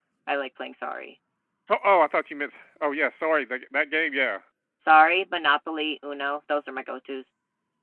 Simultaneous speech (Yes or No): No